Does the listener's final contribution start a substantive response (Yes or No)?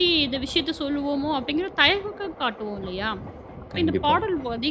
No